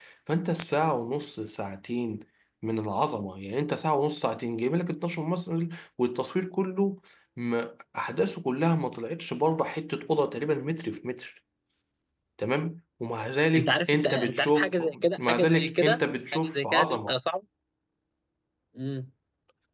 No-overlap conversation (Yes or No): No